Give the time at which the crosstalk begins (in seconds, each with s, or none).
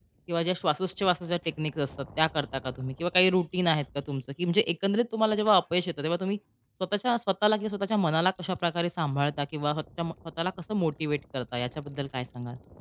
none